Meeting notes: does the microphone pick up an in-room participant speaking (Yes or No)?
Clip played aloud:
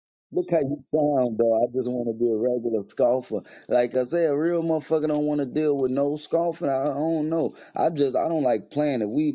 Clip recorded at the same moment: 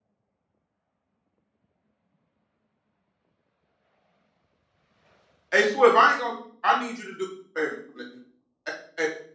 Yes